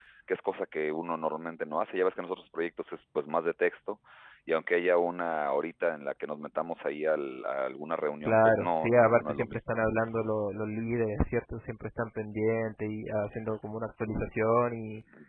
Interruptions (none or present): present